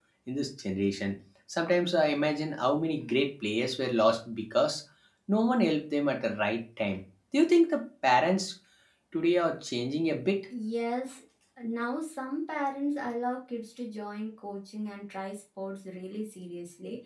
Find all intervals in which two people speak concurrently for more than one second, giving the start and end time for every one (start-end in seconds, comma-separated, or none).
none